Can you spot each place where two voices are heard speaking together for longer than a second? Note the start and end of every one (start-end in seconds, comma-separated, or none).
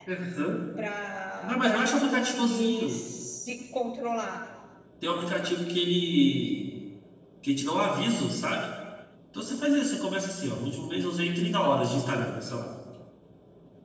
1.4-3.0